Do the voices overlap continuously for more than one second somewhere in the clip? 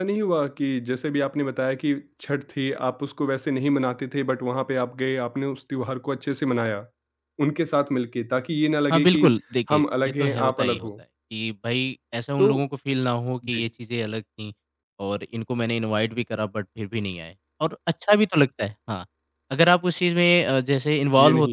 Yes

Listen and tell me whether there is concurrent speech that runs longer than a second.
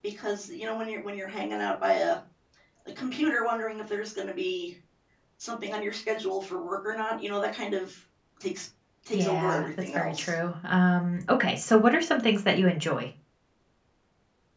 Yes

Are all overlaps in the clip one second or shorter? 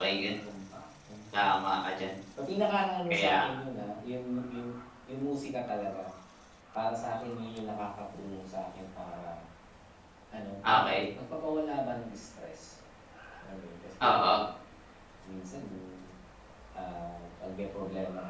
Yes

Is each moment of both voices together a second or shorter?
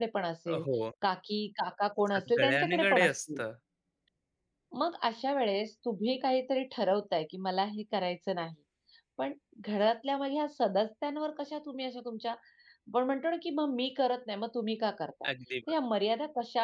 No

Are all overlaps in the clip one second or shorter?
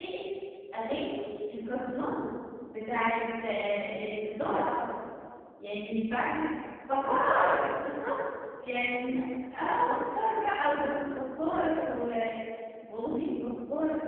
Yes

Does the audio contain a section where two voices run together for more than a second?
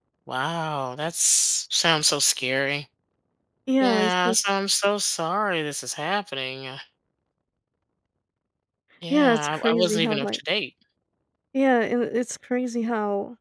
Yes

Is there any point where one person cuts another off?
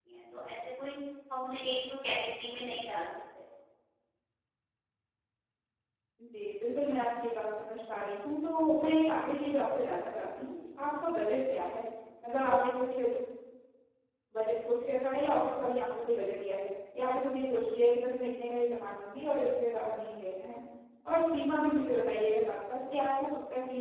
No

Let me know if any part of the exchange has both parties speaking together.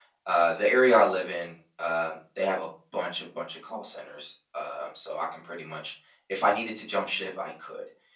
No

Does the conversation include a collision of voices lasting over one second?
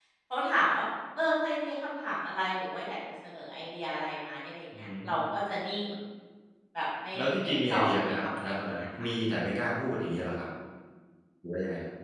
Yes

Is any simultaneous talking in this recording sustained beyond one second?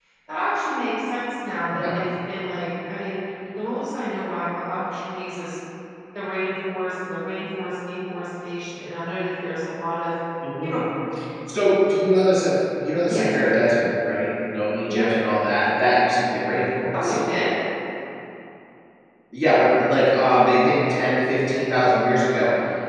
No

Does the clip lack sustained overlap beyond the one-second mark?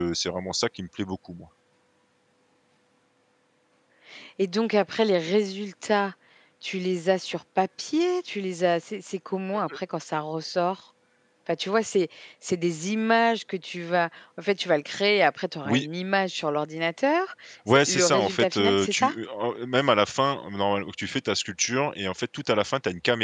No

